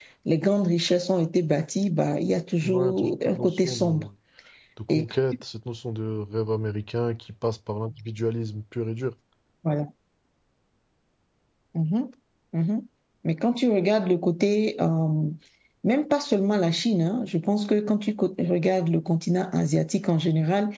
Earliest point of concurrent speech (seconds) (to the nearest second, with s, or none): 3 s